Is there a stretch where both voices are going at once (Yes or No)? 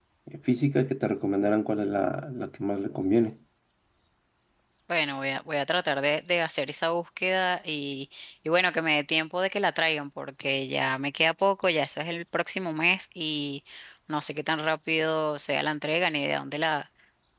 No